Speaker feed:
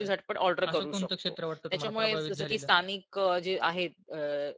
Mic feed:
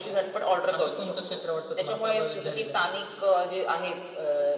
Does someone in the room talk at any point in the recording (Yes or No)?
No